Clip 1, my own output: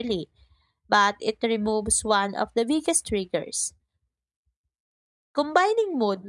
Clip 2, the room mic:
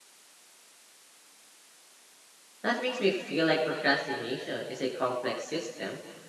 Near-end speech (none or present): present